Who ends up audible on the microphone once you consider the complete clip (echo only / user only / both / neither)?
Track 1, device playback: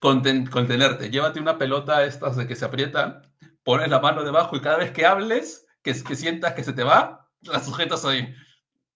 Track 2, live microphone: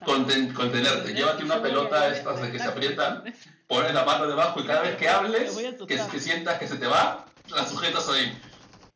both